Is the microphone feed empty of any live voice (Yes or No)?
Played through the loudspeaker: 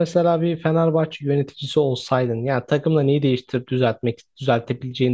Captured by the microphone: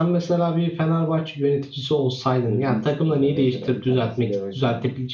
No